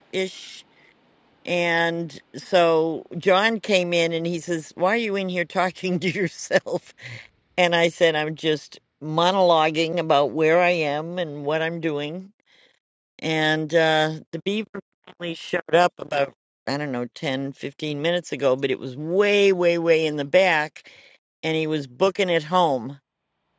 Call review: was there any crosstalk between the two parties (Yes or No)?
No